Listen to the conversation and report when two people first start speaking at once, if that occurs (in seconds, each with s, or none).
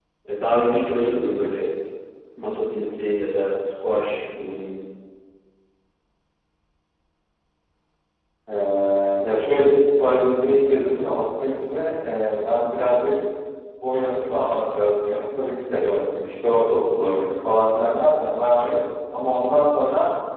none